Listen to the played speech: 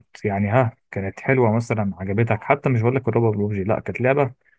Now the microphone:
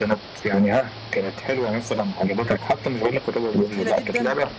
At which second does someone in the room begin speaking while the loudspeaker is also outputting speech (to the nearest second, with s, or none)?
4 s